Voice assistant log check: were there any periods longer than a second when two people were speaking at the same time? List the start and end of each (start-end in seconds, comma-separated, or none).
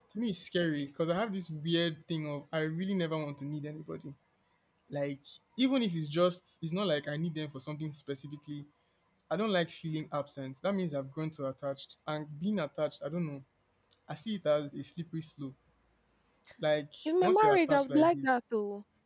17.1-18.3